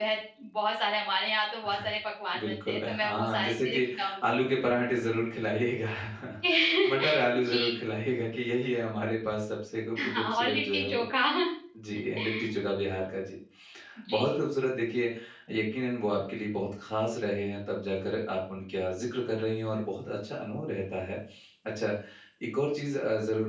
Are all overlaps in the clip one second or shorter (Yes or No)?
No